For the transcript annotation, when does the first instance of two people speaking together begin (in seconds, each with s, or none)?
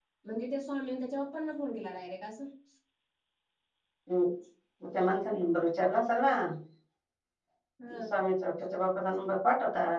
none